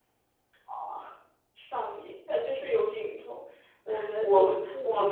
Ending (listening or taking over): taking over